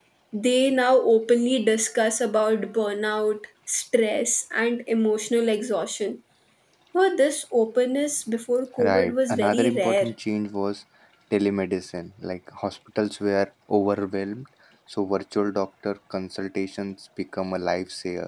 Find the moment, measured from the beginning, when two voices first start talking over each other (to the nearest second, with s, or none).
9 s